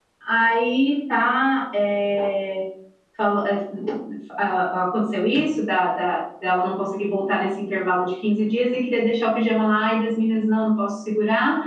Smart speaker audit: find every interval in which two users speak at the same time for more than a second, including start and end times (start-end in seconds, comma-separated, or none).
none